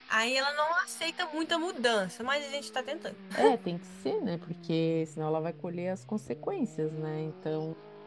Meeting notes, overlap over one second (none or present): none